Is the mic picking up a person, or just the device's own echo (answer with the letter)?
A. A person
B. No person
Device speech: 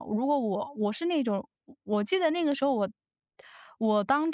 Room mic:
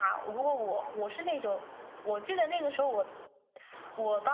B